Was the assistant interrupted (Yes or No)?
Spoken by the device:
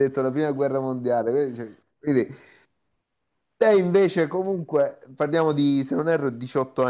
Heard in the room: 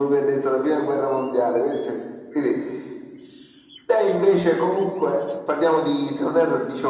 No